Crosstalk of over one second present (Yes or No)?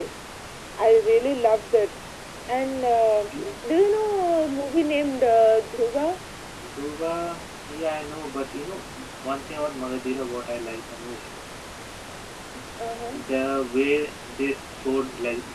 No